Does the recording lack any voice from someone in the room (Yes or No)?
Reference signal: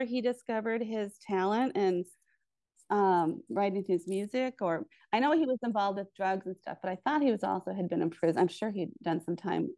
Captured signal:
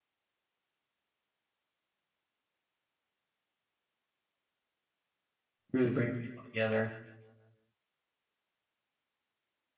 No